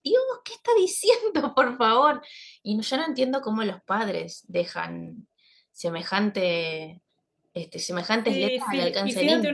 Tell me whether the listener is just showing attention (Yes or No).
No